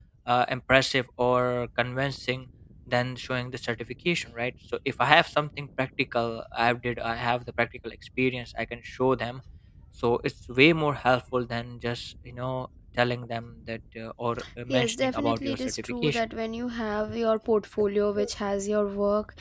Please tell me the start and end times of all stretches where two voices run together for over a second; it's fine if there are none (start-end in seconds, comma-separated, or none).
14.7-16.2